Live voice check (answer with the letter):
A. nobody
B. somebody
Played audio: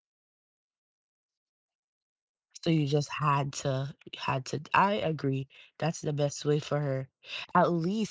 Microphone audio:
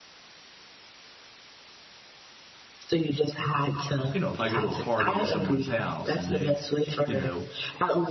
B